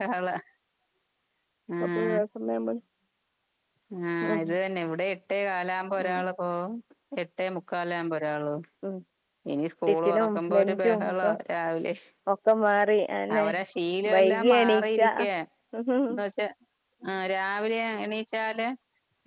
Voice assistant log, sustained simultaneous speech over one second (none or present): present